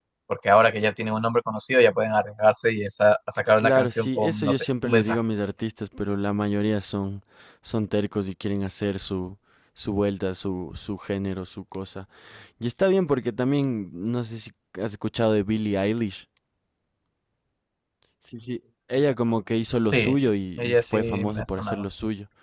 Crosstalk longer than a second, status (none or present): present